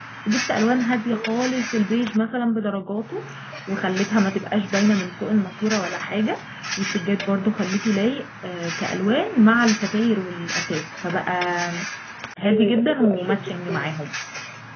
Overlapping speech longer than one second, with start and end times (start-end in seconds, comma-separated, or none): 12.4-13.9